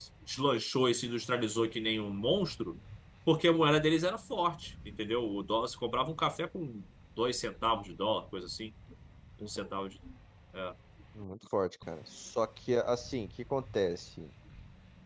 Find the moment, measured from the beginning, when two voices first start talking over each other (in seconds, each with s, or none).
none